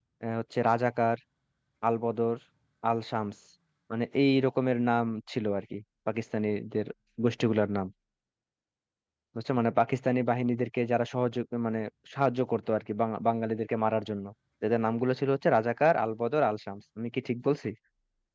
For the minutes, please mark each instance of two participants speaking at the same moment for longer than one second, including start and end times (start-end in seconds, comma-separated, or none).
none